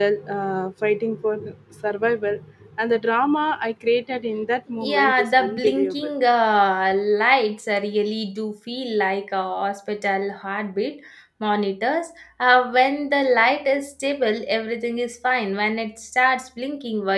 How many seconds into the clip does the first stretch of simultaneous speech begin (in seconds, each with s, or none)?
4.8 s